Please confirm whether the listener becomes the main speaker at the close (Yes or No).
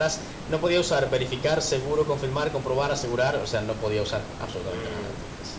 Yes